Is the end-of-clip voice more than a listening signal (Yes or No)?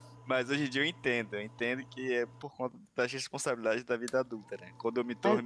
No